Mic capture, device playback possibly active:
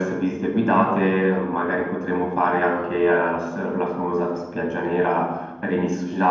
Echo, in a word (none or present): present